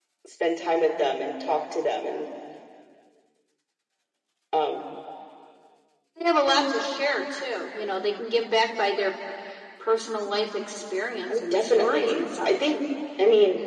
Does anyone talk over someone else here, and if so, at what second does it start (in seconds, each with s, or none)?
11.3 s